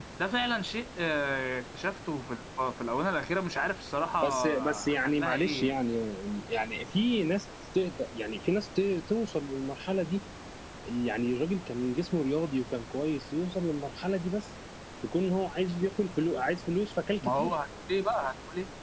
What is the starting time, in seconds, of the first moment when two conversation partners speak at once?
4 s

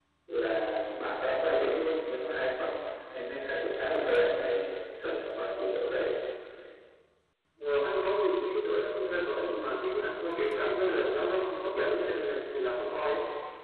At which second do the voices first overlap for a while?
none

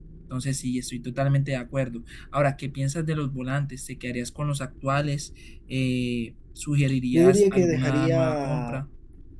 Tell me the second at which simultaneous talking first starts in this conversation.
7 s

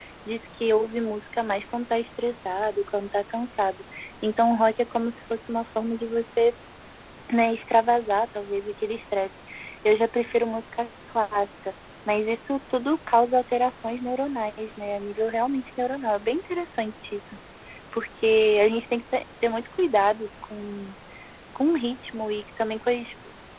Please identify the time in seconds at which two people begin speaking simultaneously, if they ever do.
none

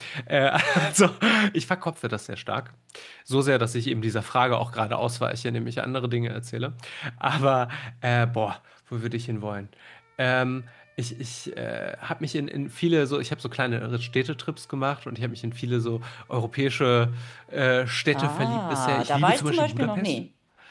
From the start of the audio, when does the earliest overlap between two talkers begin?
18 s

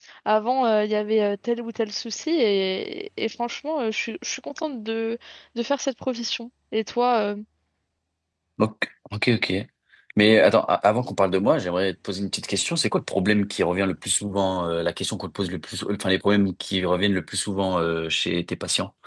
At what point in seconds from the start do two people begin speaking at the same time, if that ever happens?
none

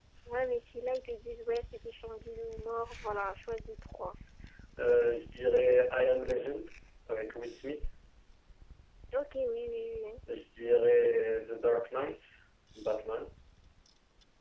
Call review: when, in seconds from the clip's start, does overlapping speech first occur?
none

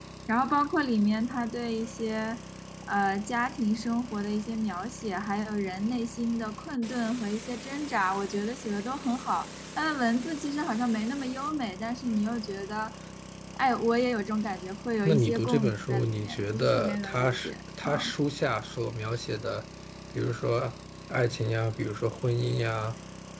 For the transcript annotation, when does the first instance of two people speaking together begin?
15 s

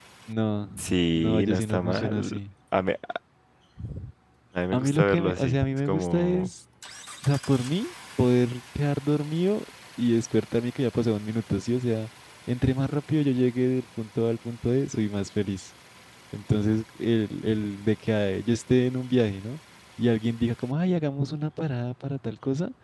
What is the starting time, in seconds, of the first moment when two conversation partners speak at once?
1 s

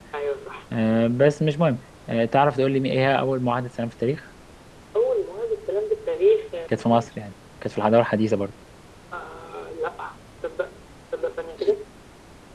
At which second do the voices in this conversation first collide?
none

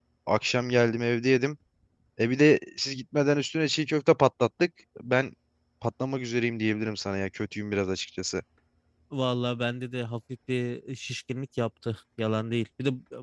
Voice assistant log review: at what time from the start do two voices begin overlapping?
none

